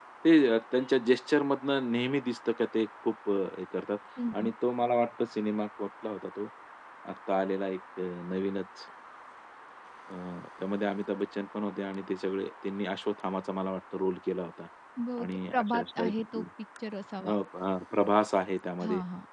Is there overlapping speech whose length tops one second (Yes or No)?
Yes